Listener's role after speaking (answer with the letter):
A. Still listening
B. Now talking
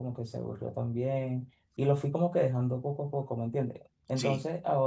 A